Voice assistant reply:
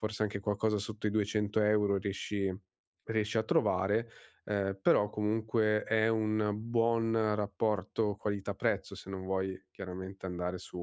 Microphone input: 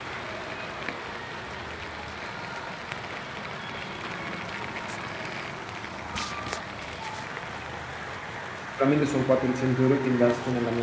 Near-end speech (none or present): present